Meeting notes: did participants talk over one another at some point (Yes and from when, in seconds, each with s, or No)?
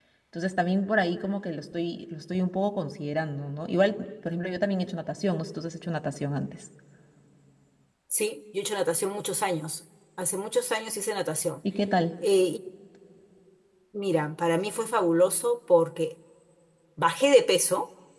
No